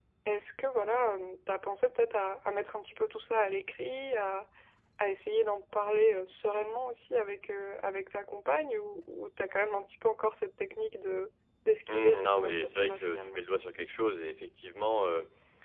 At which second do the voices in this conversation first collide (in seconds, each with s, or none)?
11.9 s